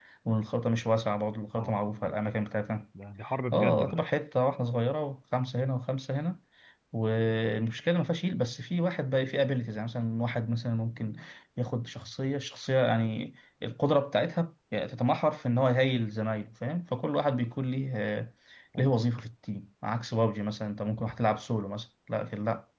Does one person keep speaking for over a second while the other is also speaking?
No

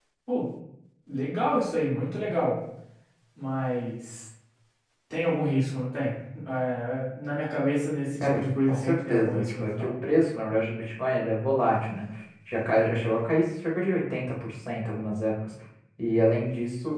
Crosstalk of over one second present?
Yes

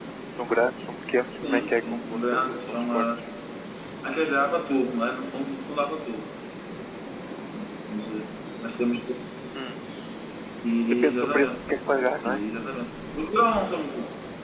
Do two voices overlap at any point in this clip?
Yes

